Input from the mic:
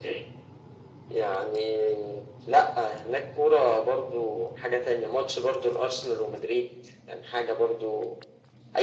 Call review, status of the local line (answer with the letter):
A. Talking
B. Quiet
B